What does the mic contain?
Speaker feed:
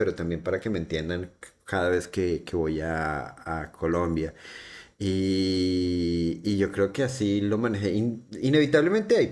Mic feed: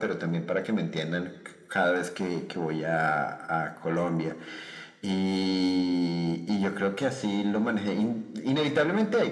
echo only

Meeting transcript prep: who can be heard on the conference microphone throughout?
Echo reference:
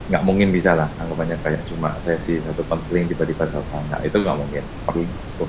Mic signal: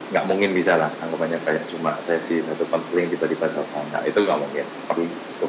echo only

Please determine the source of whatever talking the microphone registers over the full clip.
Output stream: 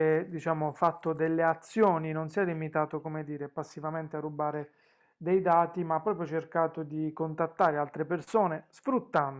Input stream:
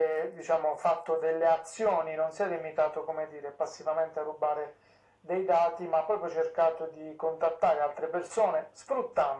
echo only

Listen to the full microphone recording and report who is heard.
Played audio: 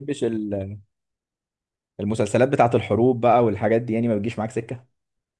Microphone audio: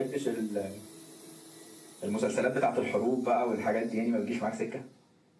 echo only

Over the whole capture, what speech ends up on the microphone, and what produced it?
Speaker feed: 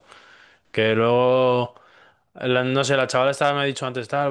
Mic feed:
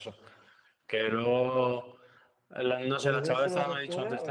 both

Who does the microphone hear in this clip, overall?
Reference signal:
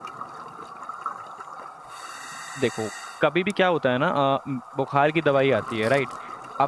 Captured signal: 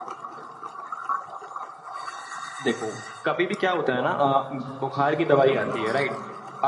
both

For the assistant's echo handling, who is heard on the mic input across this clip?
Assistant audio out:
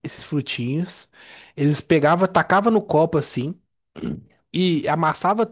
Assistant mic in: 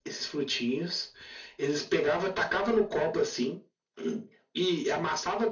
echo only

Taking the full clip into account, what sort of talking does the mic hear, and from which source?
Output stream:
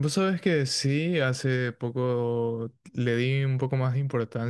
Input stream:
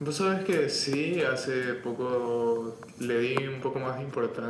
echo only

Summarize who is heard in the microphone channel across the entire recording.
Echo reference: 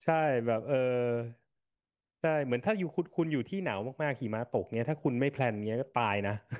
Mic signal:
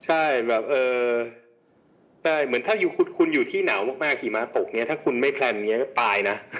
echo only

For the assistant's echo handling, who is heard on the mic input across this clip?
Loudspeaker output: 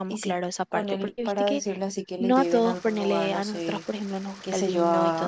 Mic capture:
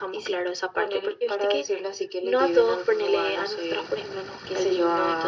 echo only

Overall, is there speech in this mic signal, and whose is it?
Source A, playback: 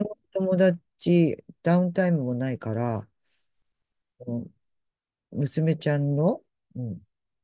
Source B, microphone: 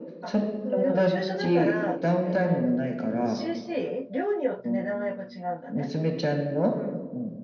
both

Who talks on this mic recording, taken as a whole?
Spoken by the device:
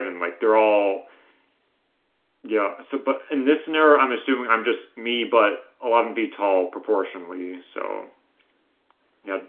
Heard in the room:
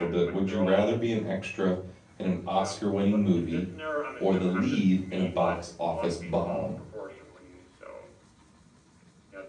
both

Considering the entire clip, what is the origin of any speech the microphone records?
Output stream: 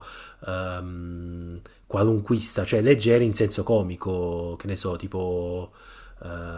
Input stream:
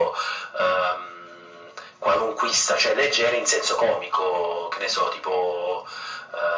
echo only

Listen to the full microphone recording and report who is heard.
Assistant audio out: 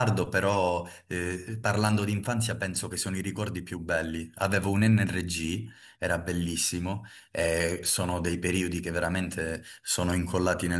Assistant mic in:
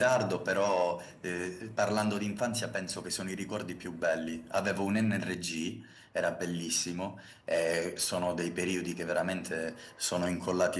echo only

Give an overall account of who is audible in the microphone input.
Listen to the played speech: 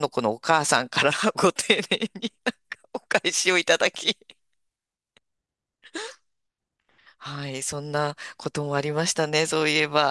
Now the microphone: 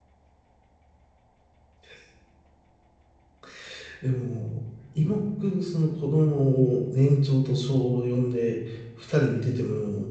user only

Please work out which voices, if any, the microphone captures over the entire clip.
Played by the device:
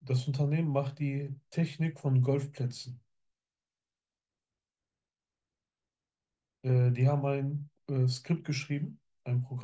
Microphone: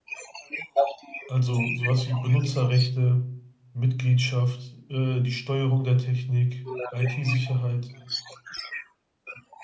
both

